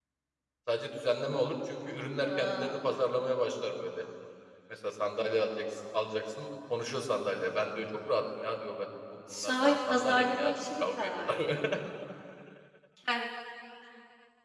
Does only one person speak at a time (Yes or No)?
No